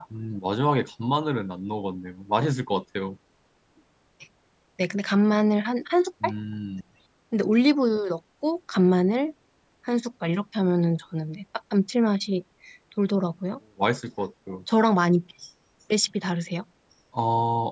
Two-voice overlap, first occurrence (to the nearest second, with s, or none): none